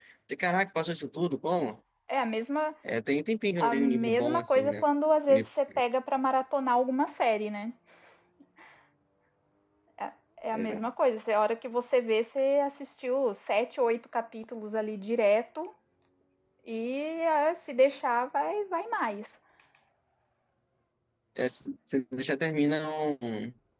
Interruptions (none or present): present